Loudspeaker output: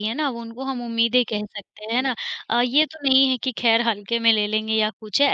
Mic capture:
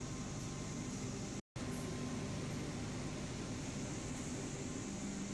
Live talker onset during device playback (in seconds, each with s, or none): none